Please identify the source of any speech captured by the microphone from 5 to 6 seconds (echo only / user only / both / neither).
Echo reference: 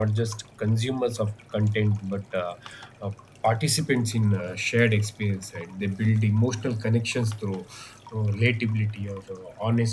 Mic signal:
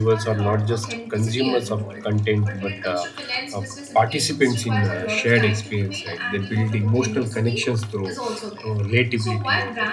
both